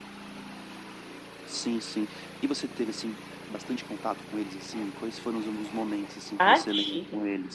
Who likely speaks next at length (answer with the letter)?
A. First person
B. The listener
B